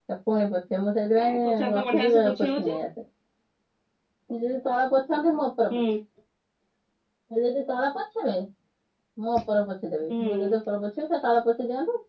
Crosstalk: present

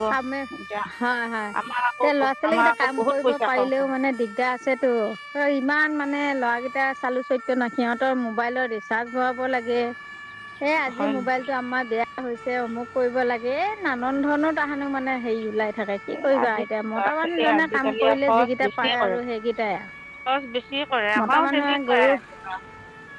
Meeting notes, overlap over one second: present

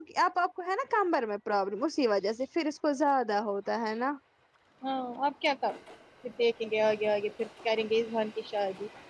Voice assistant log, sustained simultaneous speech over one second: none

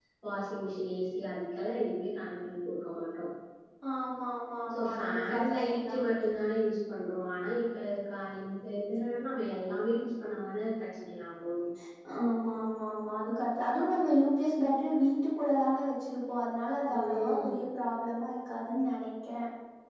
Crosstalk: present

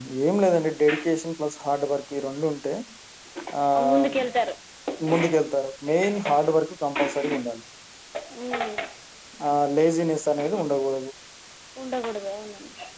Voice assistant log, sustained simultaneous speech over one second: none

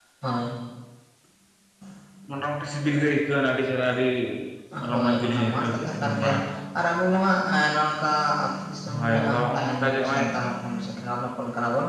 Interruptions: present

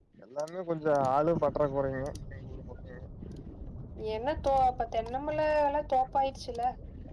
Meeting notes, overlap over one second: none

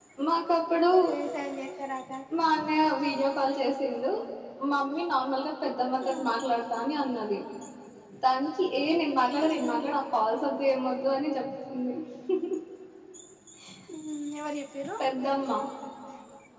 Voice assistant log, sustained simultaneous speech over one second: none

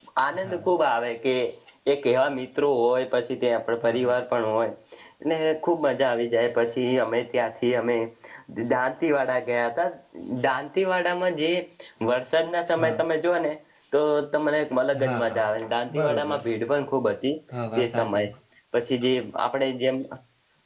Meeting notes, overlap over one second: none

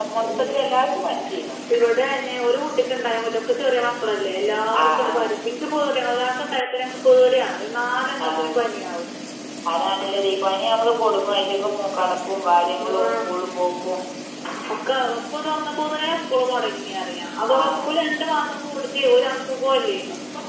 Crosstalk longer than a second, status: none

